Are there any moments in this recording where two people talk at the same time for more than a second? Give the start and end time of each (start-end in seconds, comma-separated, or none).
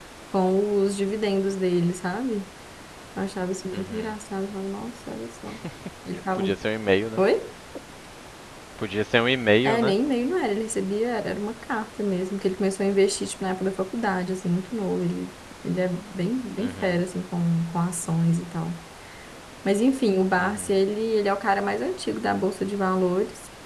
none